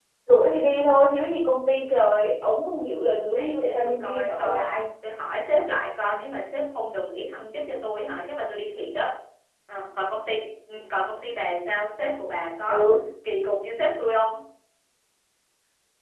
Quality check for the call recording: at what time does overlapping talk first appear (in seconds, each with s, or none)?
3.3 s